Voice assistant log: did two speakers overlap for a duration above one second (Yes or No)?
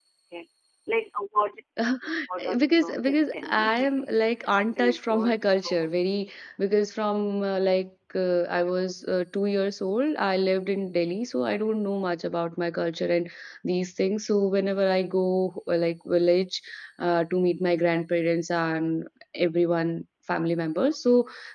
Yes